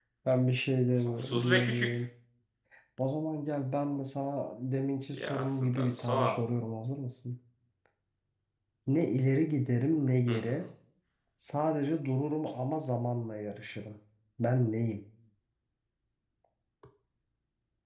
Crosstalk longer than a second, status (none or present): present